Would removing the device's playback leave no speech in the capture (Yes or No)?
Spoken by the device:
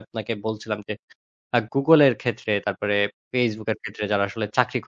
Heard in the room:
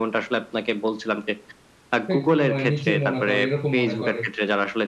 No